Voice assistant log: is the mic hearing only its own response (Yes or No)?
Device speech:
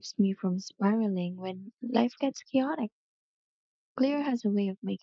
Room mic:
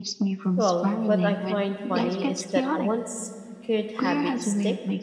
No